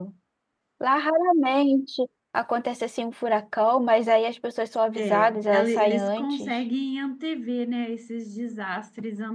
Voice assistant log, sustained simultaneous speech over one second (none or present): present